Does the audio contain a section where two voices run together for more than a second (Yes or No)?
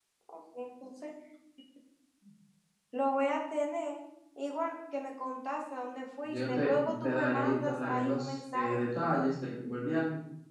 Yes